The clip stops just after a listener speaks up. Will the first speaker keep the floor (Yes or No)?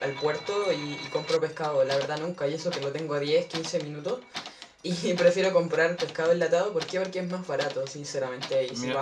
Yes